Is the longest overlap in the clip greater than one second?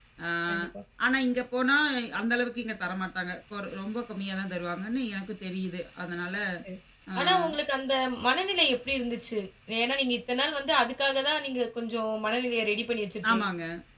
No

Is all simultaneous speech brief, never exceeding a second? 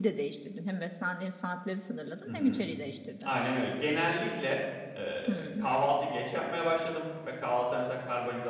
Yes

